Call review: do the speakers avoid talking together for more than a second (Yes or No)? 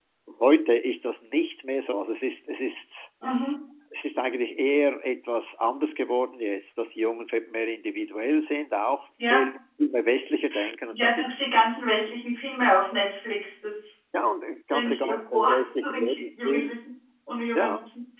No